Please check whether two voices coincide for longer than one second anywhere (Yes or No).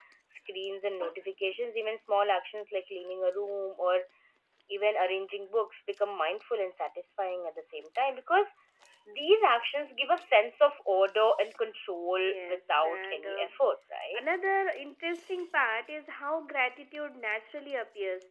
Yes